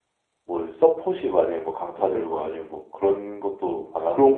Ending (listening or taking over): taking over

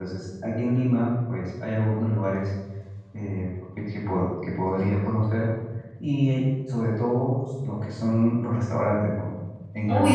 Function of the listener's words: taking over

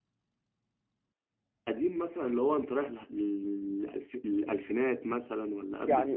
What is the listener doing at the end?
taking over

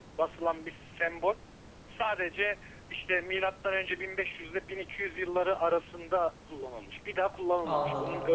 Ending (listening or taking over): listening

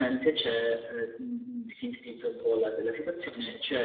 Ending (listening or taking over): listening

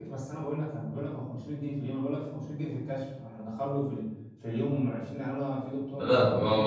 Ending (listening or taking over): taking over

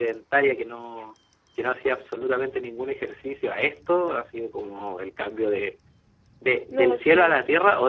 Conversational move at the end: listening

